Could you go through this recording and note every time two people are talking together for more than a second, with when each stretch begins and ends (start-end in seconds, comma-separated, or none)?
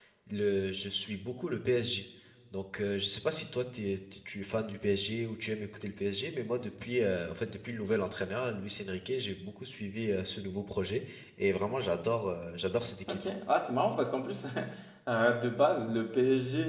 none